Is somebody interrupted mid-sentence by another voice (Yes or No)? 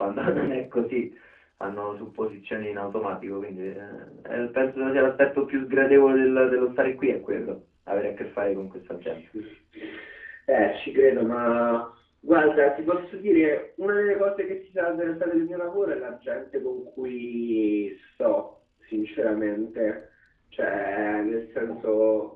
No